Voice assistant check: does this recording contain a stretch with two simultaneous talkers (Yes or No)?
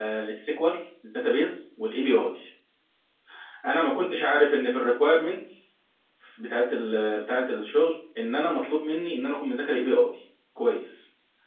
No